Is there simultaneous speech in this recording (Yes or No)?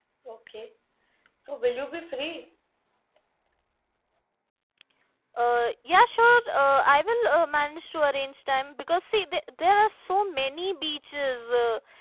No